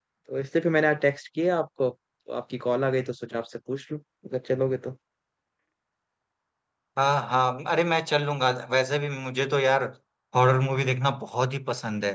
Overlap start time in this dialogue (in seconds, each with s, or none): none